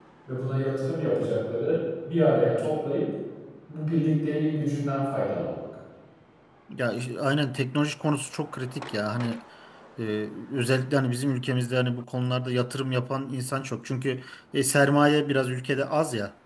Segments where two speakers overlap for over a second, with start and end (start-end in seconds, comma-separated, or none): none